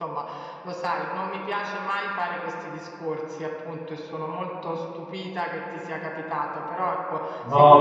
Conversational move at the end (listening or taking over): listening